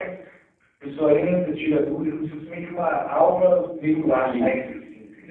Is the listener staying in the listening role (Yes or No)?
No